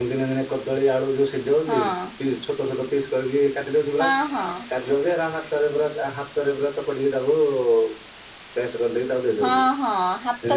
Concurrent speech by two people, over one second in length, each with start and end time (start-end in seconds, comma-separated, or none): none